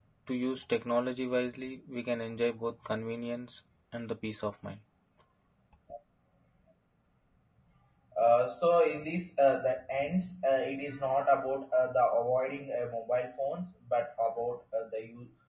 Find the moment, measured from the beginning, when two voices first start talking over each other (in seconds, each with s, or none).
none